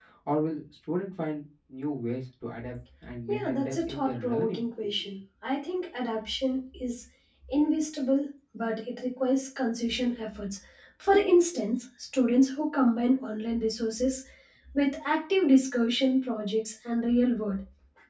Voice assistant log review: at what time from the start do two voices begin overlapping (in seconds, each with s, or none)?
3.3 s